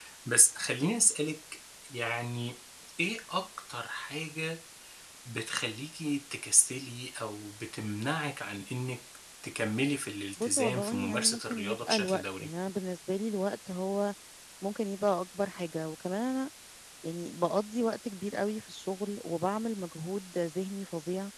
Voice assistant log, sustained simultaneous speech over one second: present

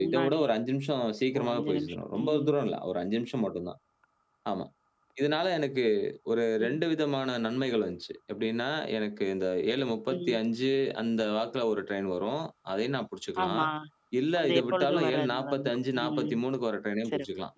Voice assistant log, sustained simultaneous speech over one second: present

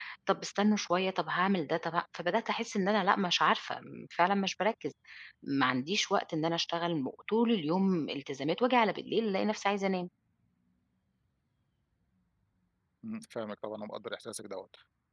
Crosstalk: none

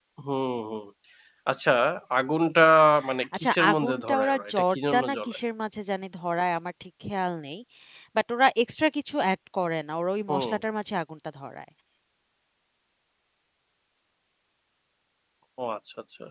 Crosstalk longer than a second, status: present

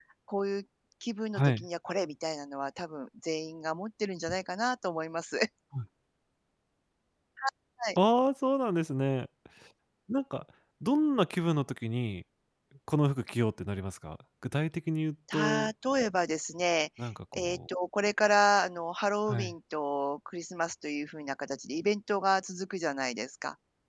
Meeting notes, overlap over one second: none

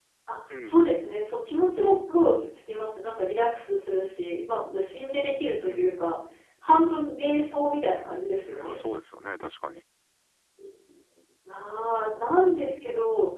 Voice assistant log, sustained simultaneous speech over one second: none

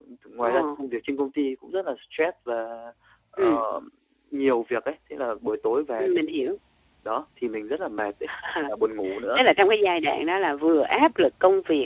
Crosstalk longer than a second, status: none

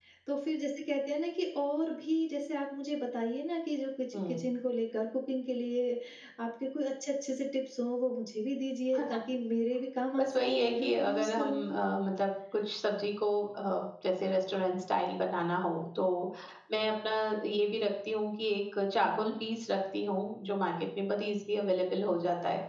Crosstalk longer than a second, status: present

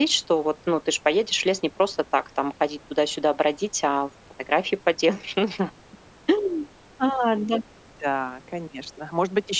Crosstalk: none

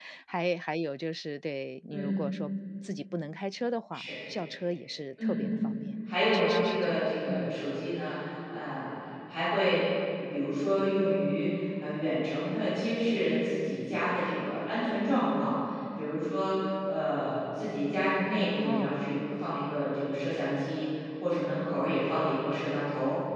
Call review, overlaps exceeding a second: present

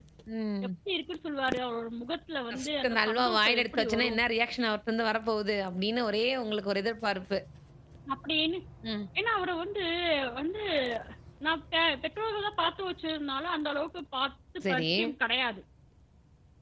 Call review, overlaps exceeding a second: present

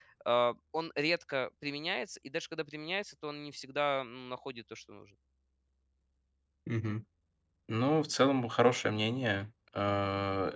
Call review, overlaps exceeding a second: none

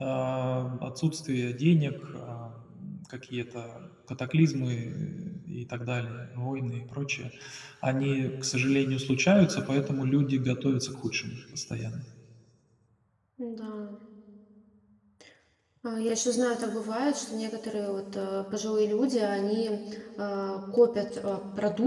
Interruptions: none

